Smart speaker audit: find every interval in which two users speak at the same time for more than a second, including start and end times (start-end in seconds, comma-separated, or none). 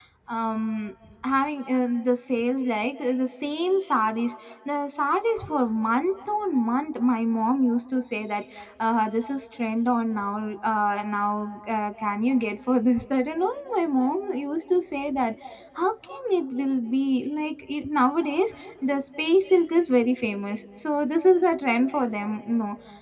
none